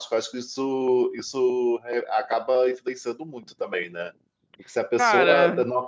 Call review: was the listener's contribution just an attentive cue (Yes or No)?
Yes